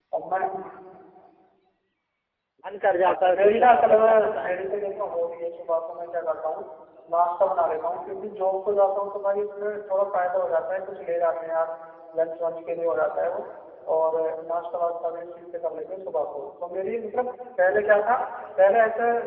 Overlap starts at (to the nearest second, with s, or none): 3 s